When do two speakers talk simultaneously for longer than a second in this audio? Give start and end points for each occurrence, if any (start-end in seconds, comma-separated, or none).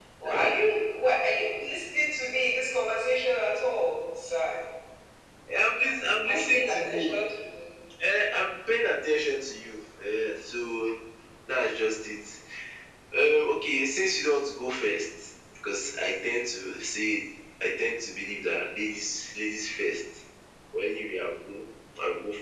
5.7-7.0